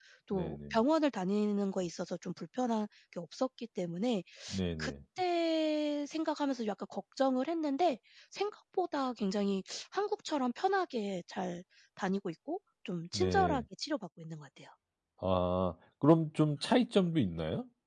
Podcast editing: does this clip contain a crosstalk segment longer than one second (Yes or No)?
No